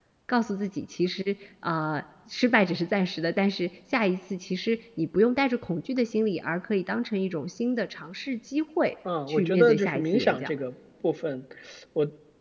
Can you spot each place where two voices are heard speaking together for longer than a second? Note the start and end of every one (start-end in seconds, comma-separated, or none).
9.3-10.5